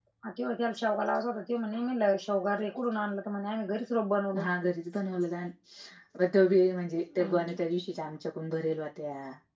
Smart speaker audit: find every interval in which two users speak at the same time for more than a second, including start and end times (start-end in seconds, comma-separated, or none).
none